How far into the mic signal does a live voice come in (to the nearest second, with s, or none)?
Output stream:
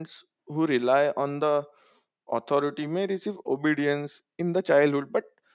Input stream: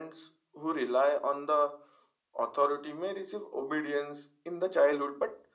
none